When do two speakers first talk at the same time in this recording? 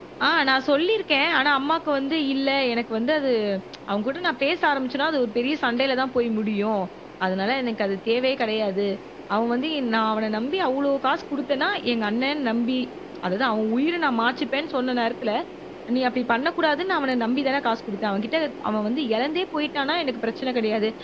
none

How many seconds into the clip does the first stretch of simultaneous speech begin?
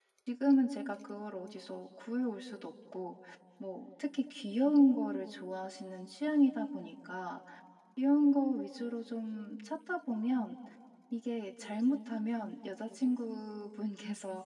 none

